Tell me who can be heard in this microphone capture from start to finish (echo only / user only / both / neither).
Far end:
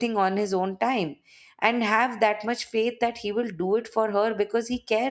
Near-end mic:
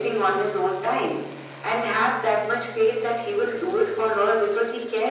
echo only